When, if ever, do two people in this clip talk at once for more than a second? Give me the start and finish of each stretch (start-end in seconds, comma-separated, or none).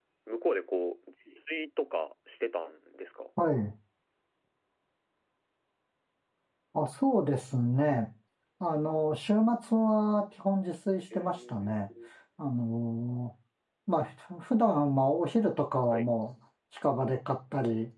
none